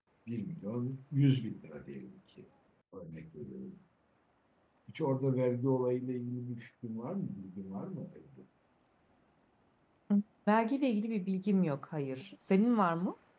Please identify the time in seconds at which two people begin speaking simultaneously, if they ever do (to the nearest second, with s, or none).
none